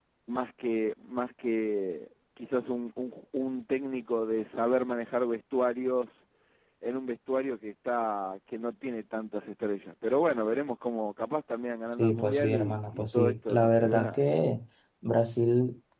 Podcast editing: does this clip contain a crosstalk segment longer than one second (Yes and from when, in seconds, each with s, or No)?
Yes, from 11.9 s